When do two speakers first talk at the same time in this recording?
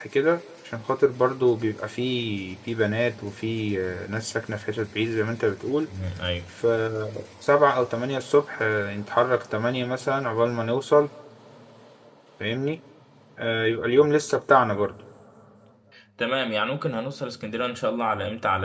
none

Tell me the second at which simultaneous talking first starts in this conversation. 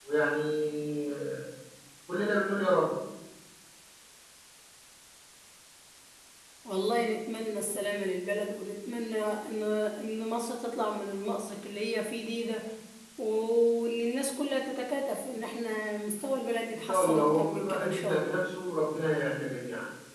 17 s

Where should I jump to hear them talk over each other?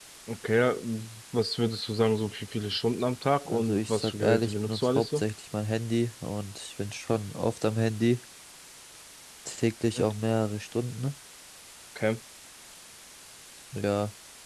3 s

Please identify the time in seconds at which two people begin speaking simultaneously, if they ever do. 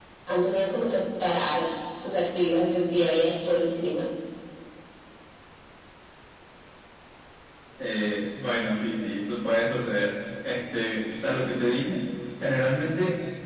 none

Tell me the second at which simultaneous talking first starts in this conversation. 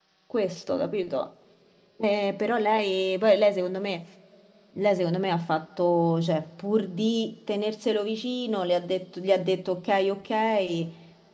none

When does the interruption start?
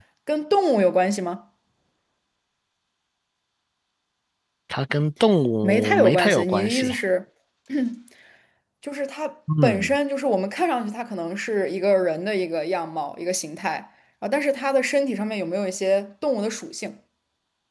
6 s

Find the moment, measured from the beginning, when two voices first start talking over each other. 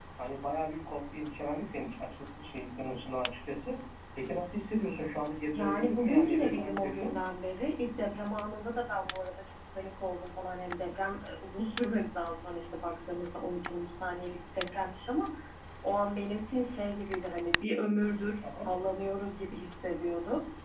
5 s

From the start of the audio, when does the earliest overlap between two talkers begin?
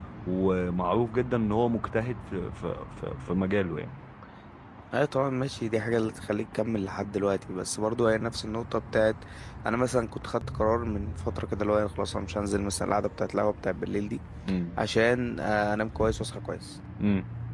none

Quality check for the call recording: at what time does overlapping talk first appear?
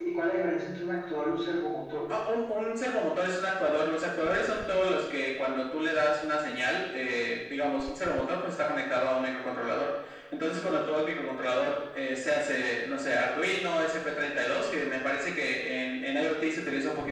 none

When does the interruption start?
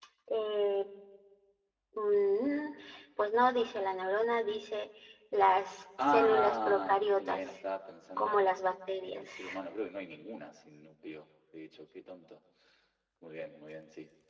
6 s

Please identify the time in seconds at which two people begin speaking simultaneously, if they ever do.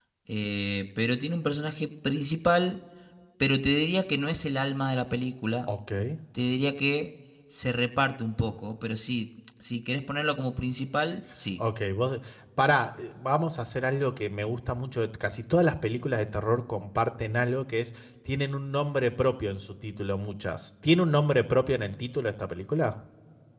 none

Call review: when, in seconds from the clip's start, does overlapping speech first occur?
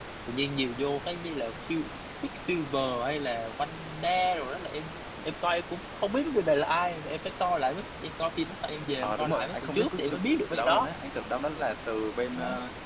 9 s

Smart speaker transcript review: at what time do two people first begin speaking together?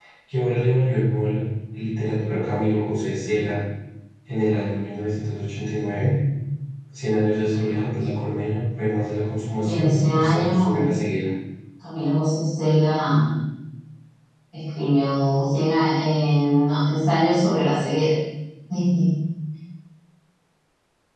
10 s

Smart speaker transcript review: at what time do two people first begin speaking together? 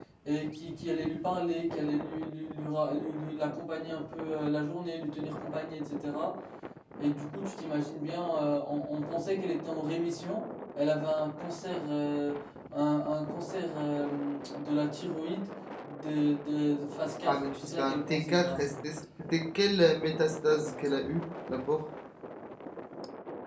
17 s

